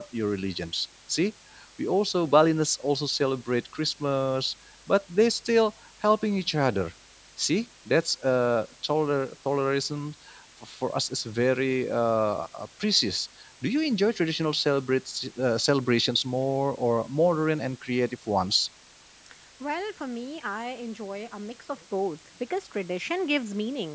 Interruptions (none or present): none